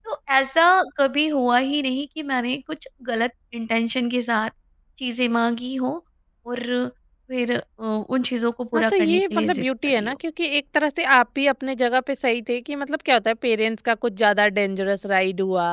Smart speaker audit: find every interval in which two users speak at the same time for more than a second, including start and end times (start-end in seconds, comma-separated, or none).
8.7-10.2